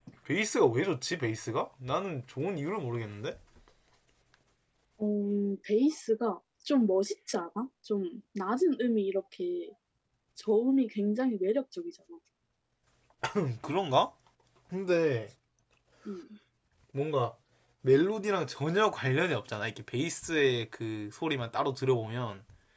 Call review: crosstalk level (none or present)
none